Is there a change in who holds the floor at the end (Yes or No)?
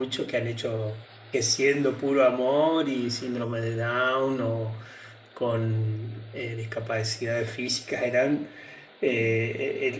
No